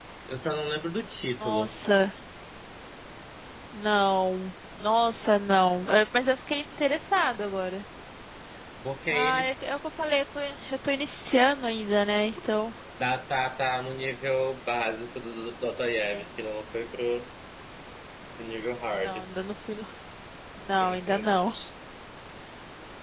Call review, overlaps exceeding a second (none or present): none